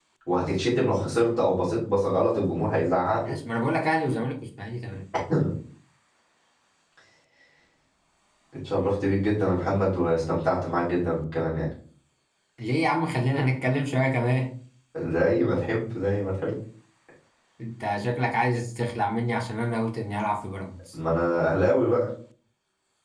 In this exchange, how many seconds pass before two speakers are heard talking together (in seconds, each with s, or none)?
none